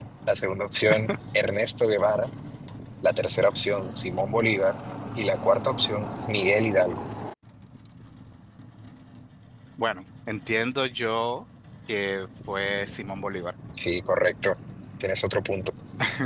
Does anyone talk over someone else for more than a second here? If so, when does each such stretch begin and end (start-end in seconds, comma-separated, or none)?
none